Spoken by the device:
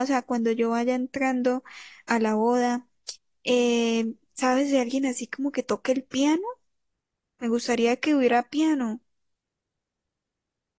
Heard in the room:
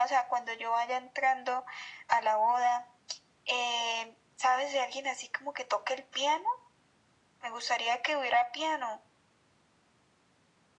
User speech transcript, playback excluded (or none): none